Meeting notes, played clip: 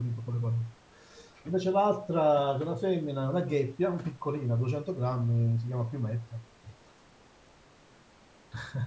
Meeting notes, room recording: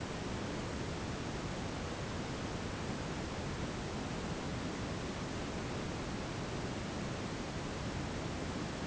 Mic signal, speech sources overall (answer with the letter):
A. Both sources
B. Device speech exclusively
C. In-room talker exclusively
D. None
D